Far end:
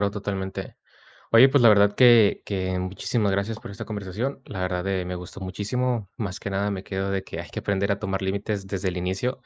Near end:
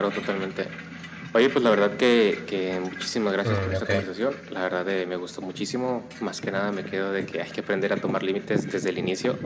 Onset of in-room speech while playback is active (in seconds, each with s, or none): 3.4 s